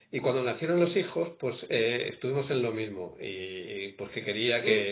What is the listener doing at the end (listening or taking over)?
listening